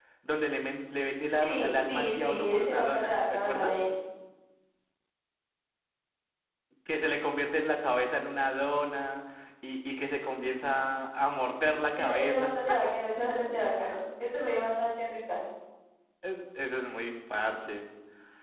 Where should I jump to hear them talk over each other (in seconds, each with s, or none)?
1.4 s